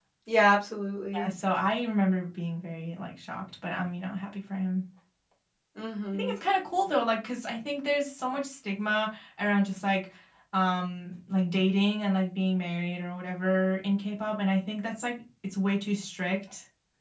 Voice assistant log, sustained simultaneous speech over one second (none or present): none